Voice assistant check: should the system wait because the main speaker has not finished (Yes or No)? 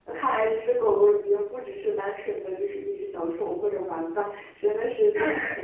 No